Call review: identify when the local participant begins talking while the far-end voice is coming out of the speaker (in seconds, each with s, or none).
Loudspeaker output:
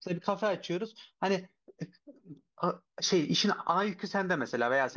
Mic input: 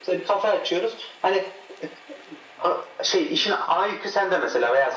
none